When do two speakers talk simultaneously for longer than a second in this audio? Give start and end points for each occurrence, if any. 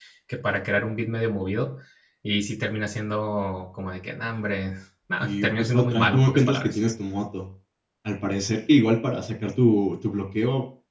5.2-6.8

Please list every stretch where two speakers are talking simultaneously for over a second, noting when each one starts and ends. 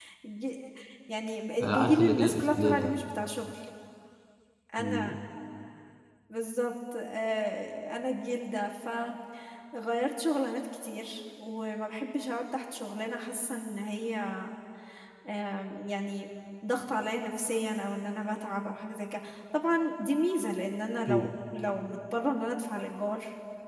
1.6-2.9

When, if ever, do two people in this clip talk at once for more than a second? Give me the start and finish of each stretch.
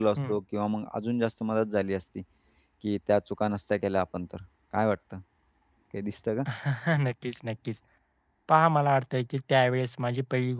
none

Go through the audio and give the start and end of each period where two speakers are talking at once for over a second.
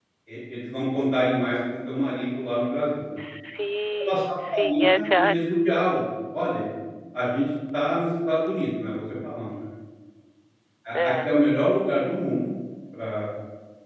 4.0-5.3

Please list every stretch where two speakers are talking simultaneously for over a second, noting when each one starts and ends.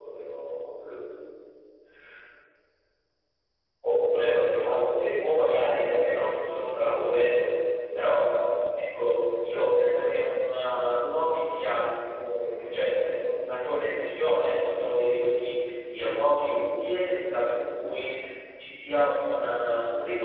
none

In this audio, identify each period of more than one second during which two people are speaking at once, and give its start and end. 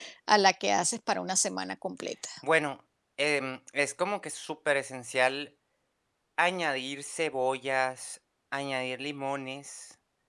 none

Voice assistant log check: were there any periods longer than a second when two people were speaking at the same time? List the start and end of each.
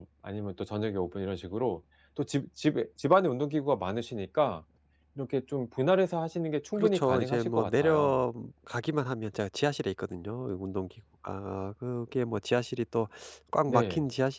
6.8-8.2

